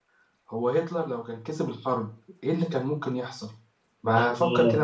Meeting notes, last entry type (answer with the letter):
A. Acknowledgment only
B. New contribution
B